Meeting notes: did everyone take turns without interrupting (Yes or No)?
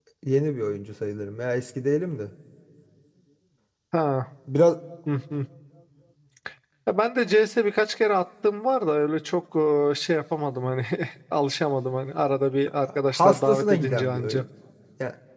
No